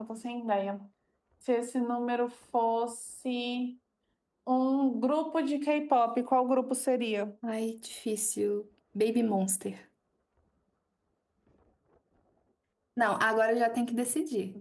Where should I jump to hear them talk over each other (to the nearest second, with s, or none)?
none